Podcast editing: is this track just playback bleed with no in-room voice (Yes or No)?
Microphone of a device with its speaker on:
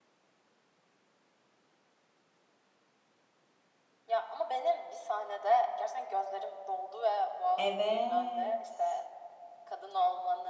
No